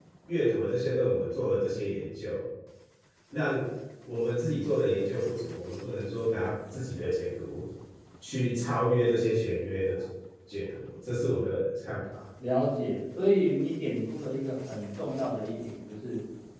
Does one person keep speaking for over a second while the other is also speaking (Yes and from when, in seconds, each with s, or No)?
No